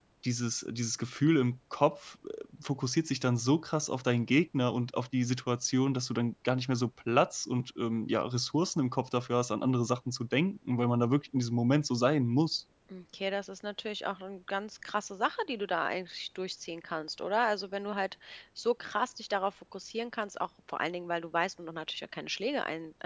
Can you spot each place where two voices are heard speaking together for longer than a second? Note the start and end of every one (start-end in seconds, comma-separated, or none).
none